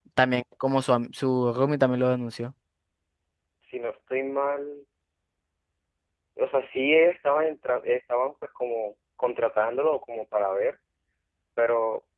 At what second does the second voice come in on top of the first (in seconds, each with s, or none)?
none